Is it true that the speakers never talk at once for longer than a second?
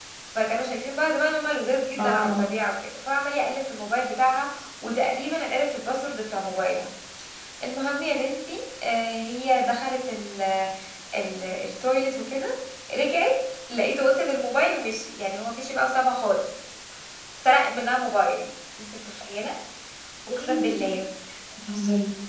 Yes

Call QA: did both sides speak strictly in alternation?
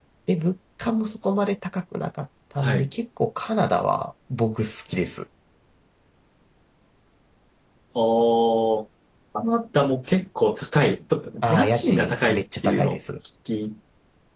No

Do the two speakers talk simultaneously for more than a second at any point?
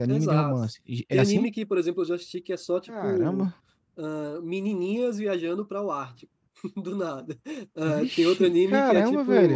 Yes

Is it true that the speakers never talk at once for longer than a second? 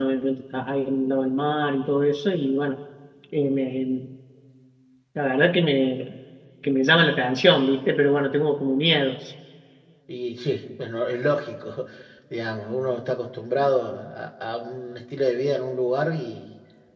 Yes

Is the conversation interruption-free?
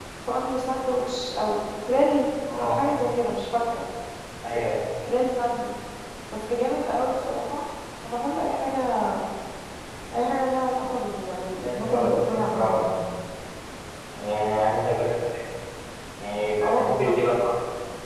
No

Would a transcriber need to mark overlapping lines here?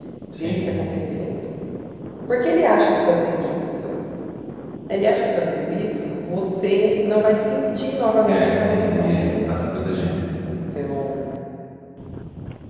Yes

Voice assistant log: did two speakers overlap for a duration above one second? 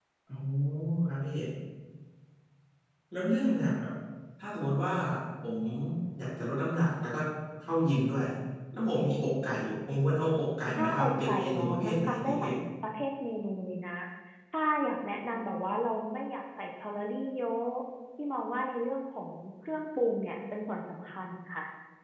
Yes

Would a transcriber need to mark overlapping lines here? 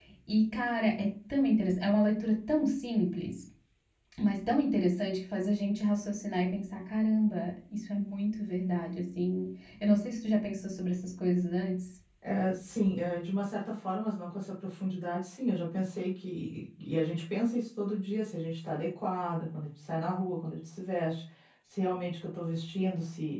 No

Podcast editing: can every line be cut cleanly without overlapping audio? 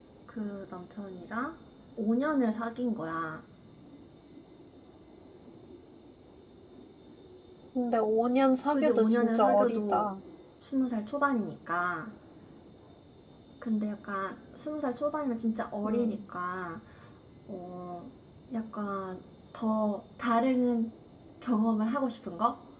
No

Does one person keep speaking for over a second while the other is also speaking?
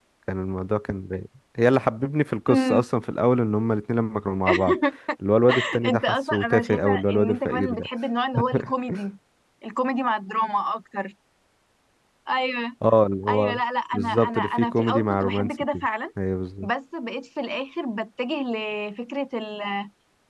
Yes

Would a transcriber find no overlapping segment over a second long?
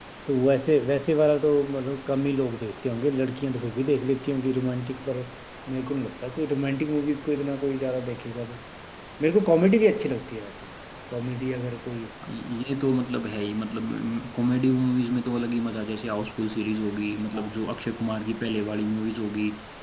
Yes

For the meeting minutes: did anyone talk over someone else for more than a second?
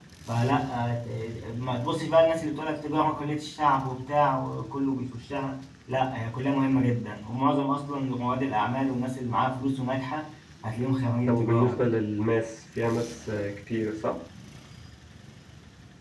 No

